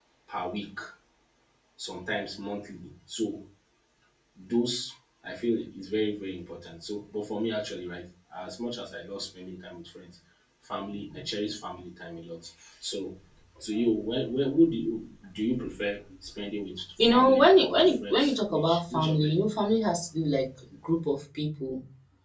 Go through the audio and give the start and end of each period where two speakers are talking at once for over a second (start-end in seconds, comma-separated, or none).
17.0-19.4